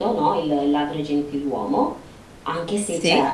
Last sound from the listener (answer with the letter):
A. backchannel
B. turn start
A